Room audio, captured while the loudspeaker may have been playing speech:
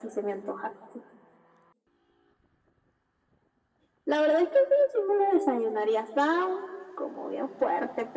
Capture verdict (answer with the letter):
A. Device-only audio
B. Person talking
A